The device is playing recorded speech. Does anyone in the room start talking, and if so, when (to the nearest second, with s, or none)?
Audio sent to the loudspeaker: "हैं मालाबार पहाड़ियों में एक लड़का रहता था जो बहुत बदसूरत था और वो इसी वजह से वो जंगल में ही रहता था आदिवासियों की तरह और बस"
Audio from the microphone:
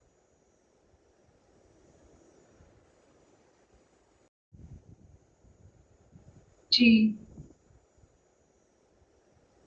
7 s